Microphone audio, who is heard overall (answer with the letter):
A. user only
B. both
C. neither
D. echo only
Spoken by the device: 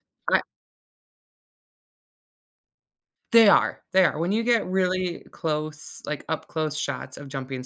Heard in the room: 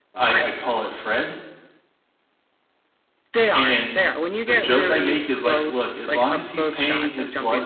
B